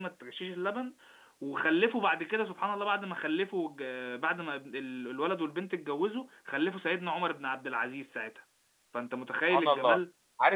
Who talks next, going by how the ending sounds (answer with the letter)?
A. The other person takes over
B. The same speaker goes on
A